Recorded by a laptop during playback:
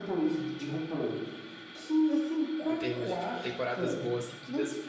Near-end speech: present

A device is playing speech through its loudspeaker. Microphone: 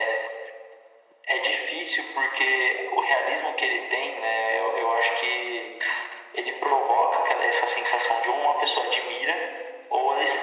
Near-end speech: none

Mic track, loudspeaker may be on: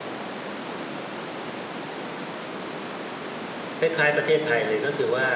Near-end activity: present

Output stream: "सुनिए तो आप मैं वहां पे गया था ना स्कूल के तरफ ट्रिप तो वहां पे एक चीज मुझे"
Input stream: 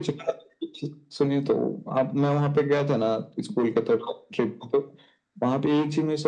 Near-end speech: none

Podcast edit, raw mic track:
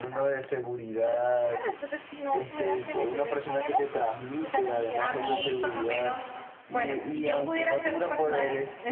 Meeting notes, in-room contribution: present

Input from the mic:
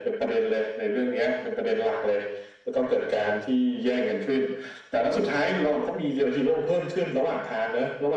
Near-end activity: none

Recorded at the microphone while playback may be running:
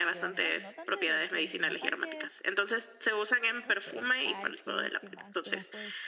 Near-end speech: present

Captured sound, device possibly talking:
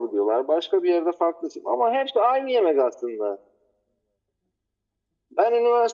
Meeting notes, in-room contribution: none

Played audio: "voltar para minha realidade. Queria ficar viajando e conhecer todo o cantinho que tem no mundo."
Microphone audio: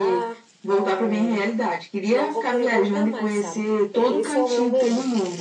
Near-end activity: present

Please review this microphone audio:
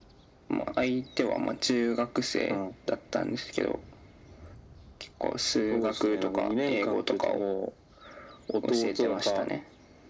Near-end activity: none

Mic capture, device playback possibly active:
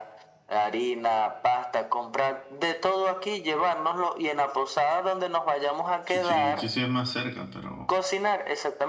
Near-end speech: present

